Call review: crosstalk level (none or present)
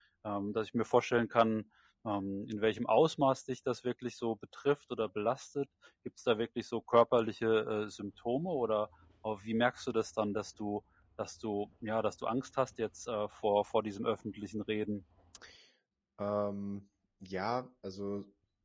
none